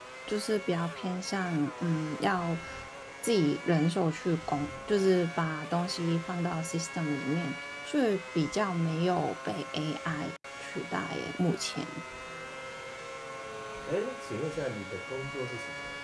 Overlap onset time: none

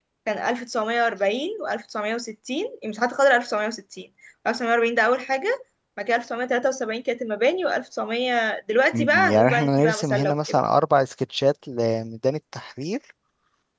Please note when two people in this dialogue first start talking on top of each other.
9 s

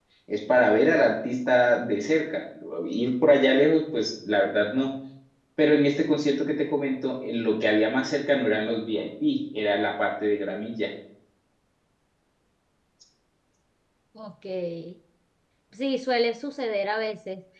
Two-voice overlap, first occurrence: none

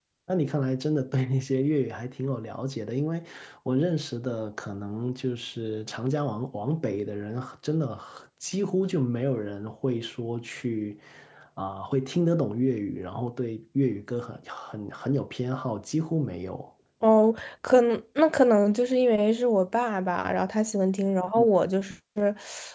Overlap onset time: none

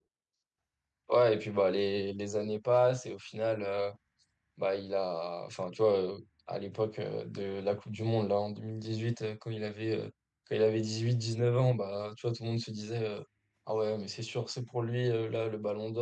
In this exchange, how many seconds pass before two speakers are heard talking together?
none

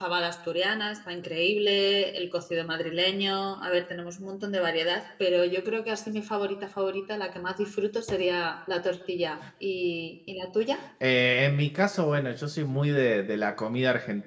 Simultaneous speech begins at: none

